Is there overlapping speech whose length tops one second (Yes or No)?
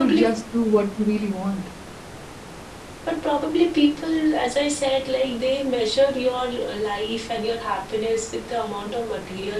No